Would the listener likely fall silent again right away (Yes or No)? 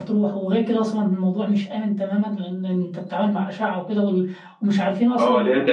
No